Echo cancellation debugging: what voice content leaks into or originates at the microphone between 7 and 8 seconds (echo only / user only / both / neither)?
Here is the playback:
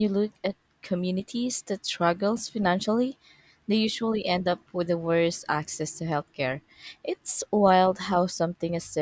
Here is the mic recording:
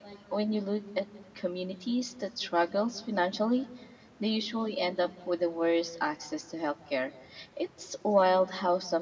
echo only